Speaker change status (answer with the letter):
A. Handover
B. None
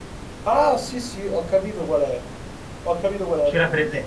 B